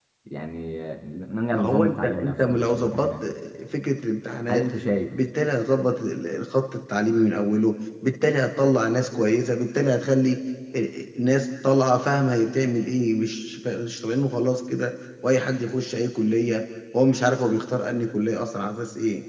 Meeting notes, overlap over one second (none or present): present